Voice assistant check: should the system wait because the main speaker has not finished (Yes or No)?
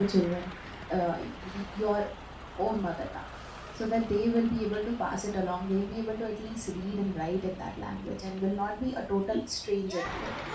No